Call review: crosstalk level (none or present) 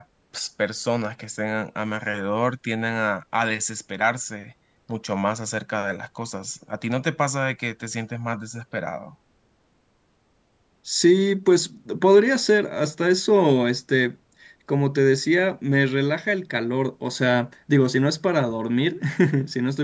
none